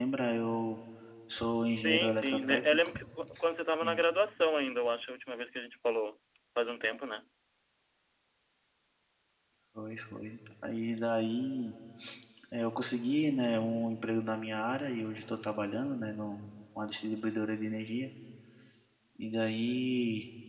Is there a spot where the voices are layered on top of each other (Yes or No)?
Yes